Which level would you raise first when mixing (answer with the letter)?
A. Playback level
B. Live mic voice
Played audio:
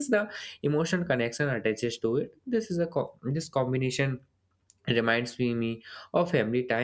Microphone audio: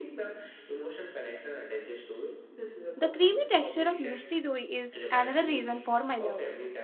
A